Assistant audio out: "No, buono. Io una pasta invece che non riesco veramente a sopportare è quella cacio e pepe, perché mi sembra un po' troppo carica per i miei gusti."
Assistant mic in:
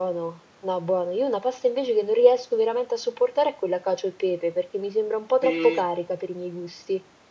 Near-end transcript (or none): Sì,